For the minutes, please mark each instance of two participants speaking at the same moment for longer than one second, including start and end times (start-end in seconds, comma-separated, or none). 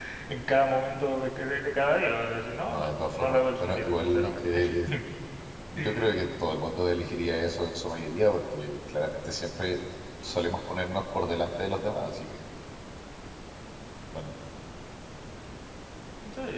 2.7-4.6